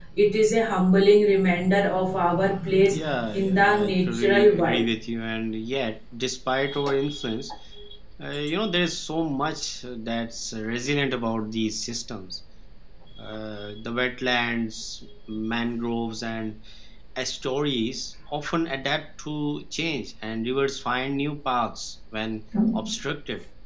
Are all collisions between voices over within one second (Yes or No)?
No